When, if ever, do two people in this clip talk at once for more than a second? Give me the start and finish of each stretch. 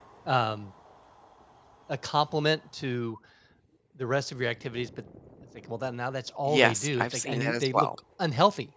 6.4-7.9

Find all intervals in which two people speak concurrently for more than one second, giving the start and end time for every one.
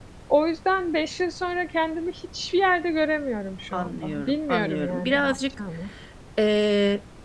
3.7-5.4

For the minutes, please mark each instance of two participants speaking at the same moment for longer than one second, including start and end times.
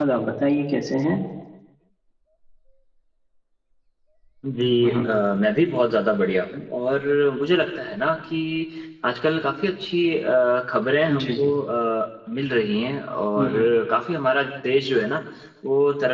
none

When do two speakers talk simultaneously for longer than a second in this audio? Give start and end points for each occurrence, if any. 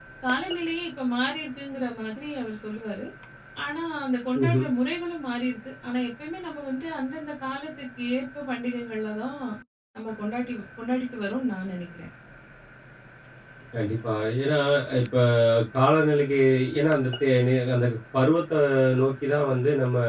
none

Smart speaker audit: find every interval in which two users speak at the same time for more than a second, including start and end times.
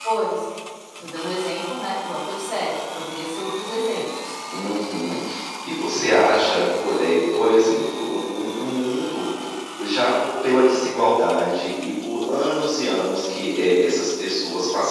none

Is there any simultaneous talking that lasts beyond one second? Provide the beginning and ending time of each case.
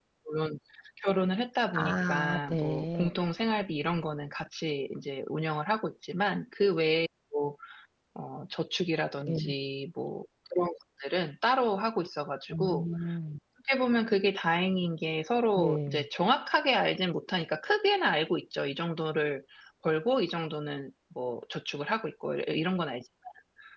1.7-3.1

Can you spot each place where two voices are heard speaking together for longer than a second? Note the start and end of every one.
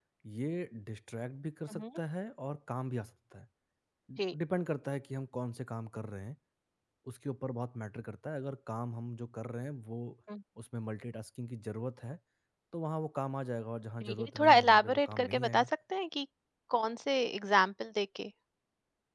14.0-15.7

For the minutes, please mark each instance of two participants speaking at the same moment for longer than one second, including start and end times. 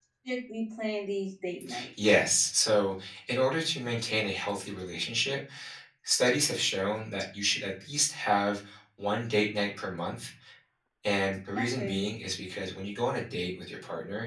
none

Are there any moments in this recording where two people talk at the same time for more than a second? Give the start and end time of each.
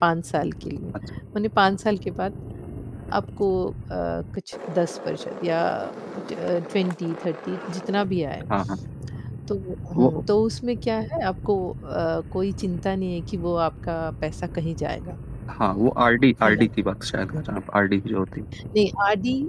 none

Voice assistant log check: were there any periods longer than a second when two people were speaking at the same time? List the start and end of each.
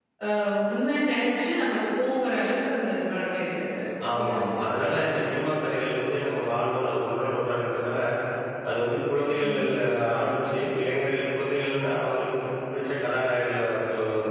none

